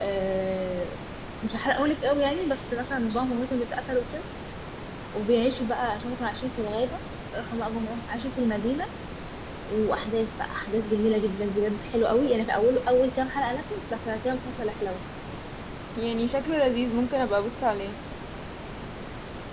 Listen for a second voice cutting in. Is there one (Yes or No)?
No